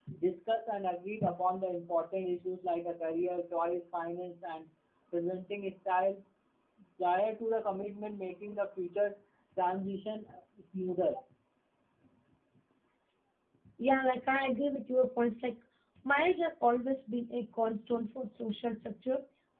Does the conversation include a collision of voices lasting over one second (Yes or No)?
No